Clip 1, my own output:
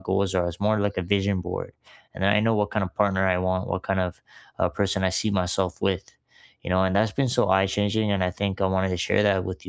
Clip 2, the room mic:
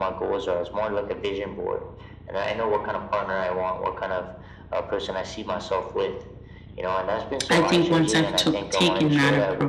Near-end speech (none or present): present